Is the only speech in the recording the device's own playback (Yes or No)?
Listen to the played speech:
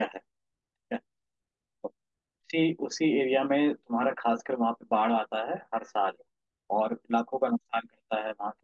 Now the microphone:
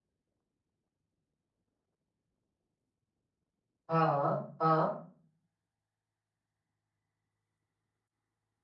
No